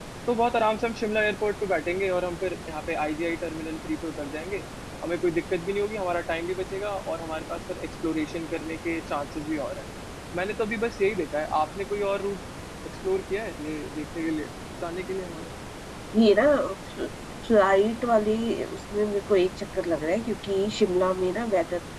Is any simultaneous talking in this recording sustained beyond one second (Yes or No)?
No